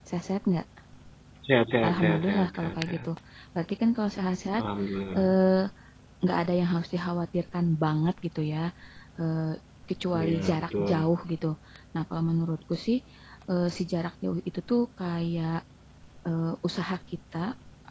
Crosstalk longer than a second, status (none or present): present